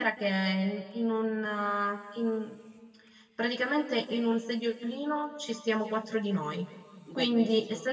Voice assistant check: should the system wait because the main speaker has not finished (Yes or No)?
Yes